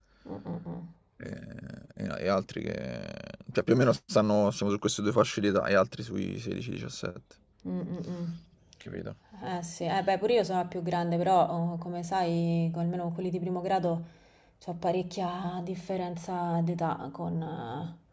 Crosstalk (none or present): none